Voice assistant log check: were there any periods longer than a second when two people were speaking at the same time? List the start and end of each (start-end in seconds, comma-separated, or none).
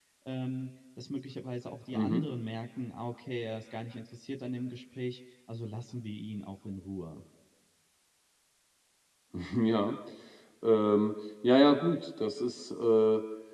none